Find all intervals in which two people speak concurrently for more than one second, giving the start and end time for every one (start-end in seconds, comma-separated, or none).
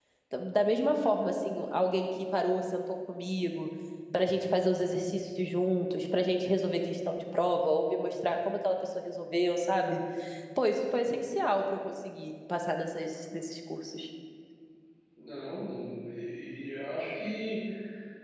none